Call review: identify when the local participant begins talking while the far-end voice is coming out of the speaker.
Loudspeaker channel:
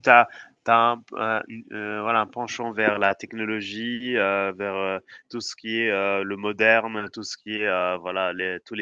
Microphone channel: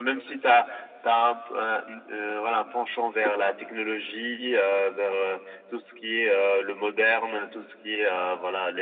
none

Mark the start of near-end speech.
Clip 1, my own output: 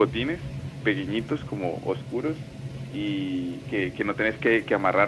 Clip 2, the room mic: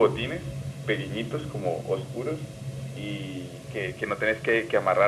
none

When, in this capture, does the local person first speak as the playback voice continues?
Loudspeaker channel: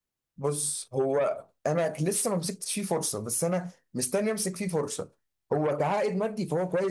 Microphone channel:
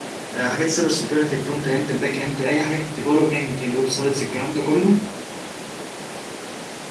0.3 s

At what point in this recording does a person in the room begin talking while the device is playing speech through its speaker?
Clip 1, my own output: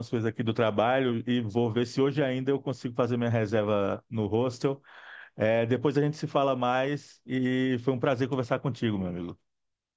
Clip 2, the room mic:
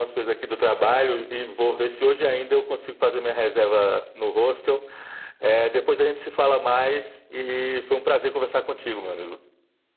none

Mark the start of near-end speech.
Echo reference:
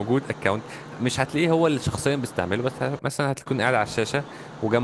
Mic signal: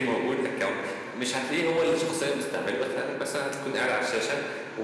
none

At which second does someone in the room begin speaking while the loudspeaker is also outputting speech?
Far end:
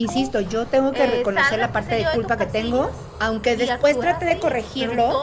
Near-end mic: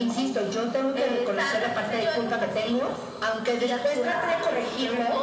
4.0 s

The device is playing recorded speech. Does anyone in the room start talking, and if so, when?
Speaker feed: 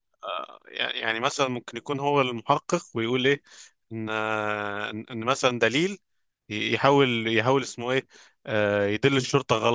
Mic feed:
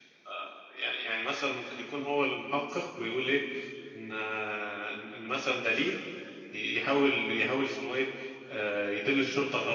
none

